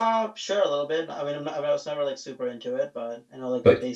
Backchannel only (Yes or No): No